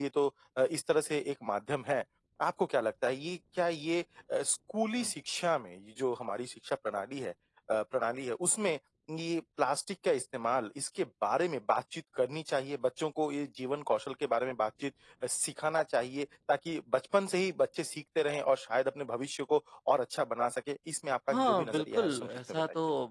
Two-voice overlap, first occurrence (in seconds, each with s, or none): 21.3 s